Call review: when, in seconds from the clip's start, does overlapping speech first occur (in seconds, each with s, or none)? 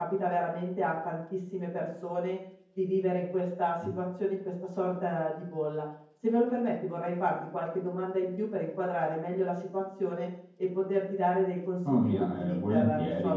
11.8 s